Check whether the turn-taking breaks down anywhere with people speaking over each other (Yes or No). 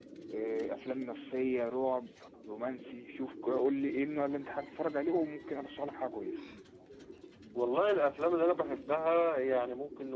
No